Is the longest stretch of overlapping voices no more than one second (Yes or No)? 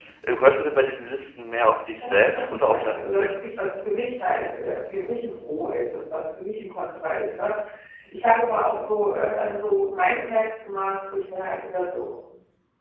No